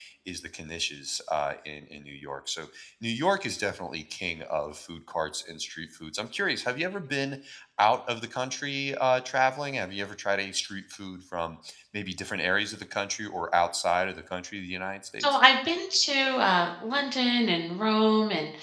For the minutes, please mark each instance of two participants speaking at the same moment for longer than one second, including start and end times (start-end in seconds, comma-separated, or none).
none